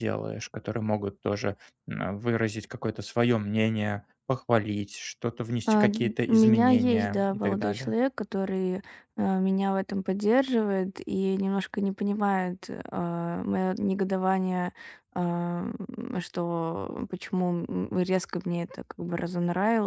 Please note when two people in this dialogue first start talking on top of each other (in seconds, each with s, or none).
5.7 s